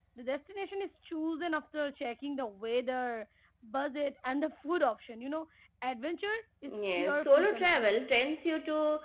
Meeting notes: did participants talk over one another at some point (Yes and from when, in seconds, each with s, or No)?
Yes, from 6.7 s